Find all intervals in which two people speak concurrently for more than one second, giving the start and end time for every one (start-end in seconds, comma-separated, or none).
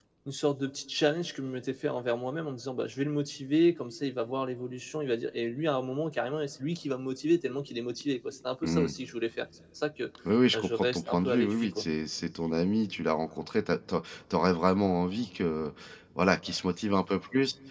10.5-11.9